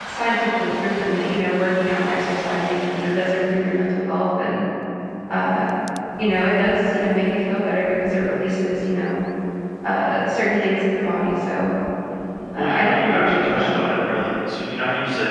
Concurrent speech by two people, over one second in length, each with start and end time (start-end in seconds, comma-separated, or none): 12.5-13.8